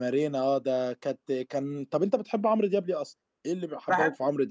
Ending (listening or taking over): taking over